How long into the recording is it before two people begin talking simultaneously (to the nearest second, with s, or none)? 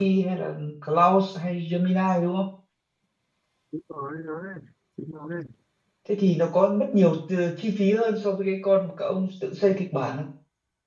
none